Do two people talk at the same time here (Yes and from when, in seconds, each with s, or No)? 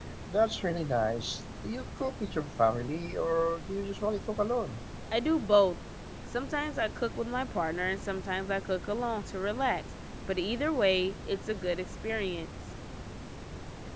No